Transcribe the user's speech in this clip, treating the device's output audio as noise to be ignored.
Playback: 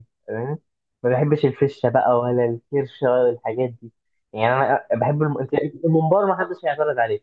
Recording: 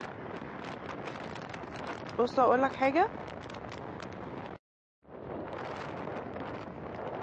بص اقول لك حاجة

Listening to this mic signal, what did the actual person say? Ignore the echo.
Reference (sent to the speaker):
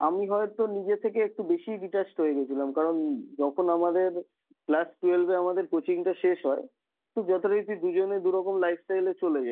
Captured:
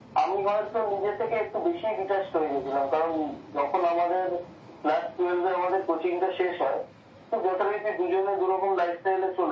none

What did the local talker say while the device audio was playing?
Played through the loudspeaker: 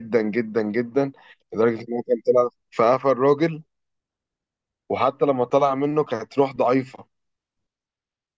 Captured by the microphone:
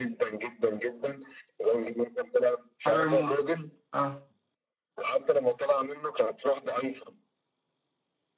حجر الموت اه

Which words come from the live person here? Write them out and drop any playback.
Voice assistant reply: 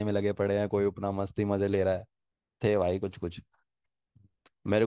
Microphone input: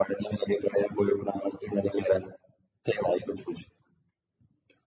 none

